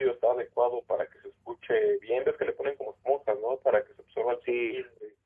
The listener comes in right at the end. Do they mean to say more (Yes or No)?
Yes